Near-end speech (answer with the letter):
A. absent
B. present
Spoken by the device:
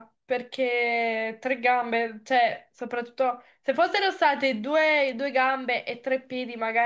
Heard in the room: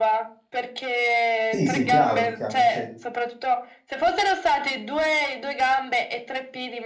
B